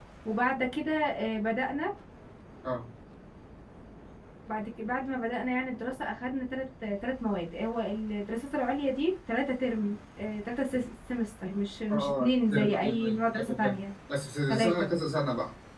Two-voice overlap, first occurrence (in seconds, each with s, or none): 11.9 s